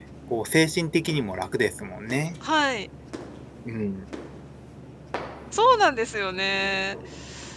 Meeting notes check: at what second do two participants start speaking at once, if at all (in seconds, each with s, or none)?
none